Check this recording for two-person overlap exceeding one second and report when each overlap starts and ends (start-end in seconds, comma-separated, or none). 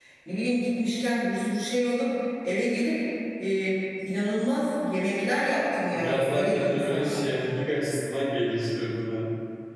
5.9-7.2